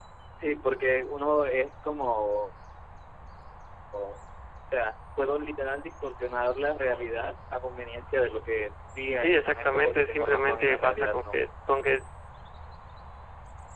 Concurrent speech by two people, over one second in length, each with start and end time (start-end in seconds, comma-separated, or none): 9.2-11.4